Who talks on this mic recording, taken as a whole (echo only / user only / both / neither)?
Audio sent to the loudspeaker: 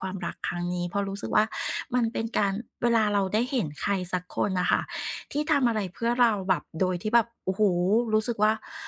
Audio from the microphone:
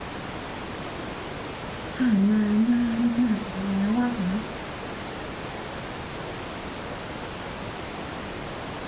user only